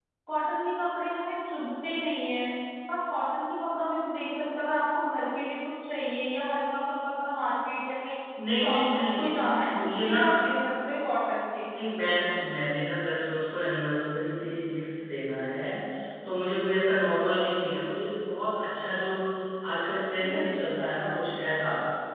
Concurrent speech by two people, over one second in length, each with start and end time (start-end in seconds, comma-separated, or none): 8.6-10.2